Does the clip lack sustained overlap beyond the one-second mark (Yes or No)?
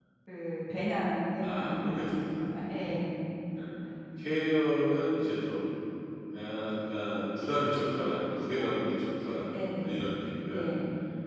No